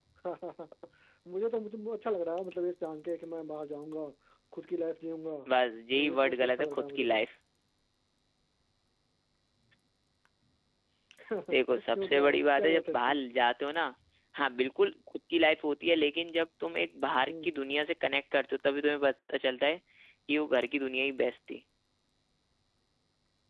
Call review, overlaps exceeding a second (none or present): present